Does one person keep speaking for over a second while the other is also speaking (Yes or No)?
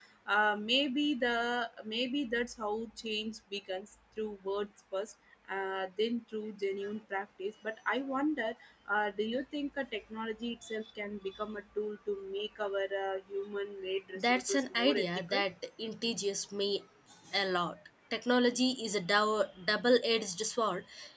Yes